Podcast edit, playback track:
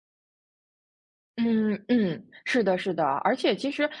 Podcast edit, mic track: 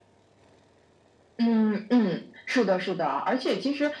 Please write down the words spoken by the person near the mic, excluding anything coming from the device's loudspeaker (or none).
none